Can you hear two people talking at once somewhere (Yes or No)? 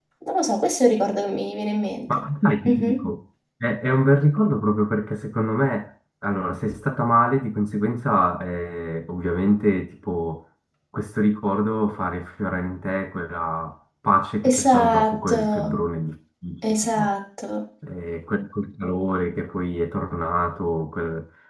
Yes